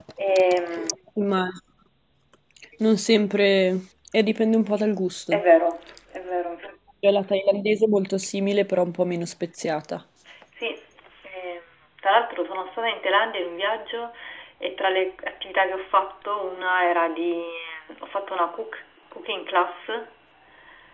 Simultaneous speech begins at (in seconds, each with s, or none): none